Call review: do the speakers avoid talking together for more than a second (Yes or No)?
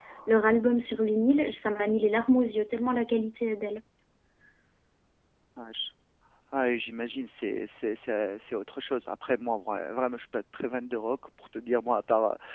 Yes